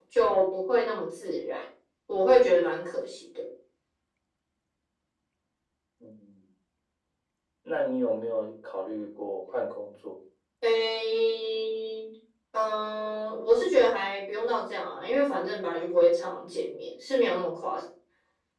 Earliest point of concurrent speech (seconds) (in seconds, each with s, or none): none